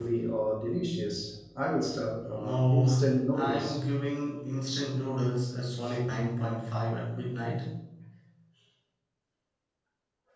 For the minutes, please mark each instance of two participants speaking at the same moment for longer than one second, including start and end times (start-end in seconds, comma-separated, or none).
2.2-3.8